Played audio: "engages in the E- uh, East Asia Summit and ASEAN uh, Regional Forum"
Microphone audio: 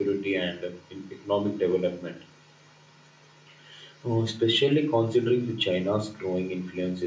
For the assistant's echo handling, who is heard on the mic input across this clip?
user only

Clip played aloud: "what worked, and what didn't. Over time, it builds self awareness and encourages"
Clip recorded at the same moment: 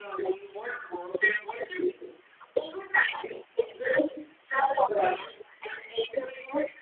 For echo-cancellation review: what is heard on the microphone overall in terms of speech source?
echo only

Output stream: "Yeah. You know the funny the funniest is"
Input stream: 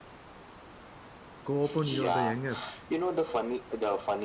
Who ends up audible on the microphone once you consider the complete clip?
both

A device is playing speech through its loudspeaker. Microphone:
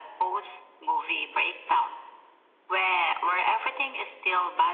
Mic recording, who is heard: echo only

